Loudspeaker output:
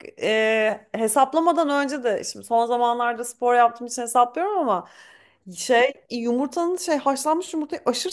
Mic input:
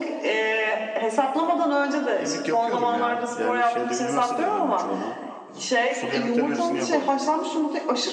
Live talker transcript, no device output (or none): Yemek yapıyorum ya. Yani şeyde üniversitede öğrendim çoğunu. Ee, Sulu yemeklerin hepsini yaparım.